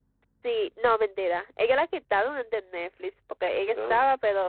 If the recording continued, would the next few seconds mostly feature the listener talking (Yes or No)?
No